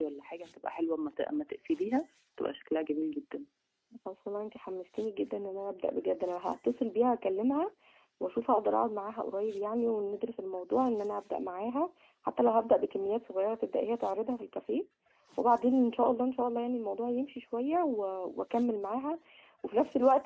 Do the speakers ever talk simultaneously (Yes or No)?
No